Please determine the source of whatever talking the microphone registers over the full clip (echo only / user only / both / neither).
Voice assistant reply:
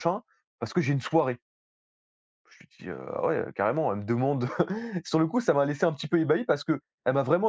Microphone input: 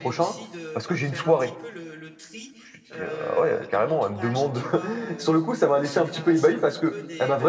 both